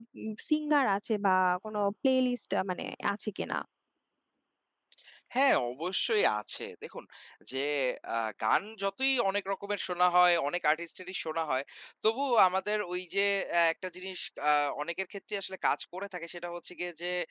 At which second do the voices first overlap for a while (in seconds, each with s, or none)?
none